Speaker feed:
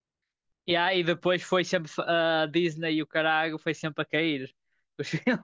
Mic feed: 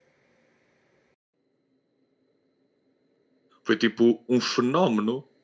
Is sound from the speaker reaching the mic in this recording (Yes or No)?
No